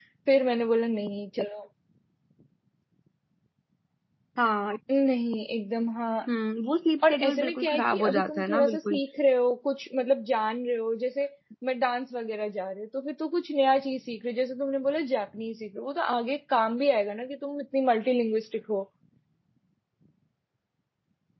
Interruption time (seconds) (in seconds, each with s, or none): 7.1 s